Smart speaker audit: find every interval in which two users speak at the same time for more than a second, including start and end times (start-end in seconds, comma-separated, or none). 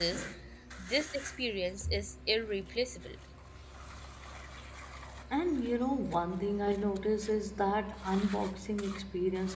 none